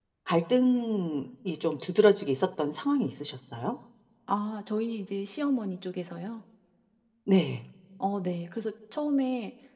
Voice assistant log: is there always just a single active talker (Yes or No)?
Yes